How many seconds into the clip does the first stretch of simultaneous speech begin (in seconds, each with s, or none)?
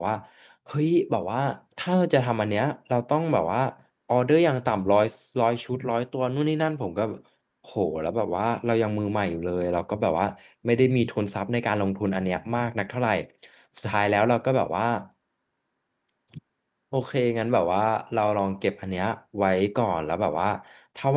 none